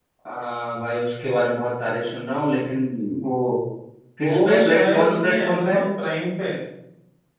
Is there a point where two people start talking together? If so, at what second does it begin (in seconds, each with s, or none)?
4.2 s